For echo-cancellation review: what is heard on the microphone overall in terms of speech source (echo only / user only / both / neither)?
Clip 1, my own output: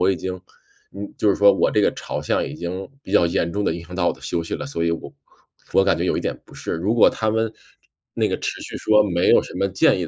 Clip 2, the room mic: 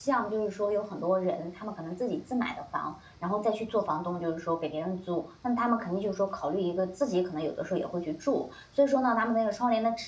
user only